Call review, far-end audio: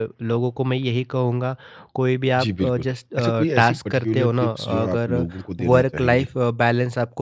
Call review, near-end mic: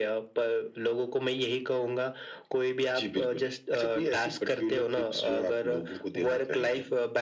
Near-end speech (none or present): none